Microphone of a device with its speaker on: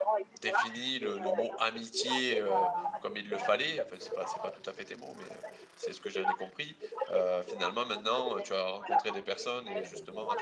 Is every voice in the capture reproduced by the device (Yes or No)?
No